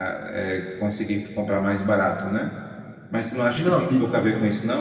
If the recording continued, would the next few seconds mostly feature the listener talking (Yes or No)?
No